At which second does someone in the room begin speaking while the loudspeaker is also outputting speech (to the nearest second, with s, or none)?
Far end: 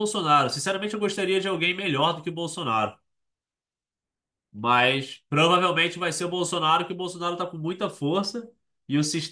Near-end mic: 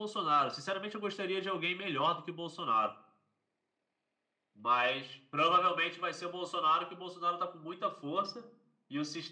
none